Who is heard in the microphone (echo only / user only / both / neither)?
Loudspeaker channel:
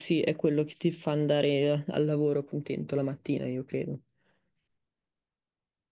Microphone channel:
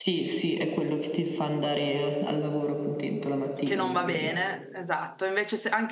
both